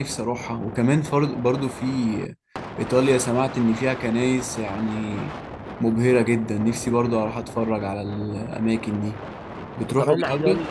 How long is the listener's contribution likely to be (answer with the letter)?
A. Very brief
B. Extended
B